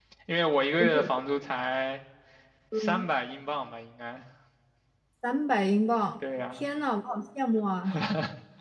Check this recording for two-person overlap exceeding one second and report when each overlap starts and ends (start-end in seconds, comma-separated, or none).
none